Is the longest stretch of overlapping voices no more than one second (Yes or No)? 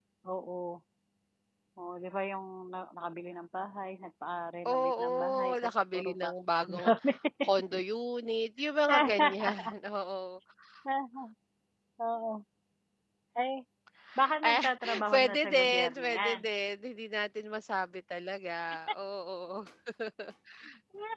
No